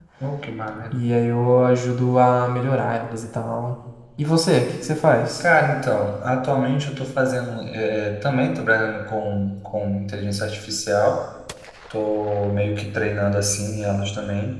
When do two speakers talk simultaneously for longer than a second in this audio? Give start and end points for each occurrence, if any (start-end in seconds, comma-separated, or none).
none